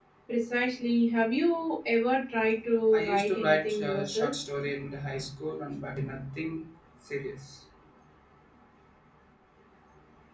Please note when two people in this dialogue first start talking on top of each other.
2.9 s

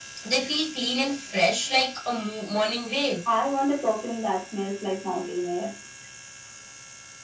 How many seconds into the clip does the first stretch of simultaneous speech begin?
none

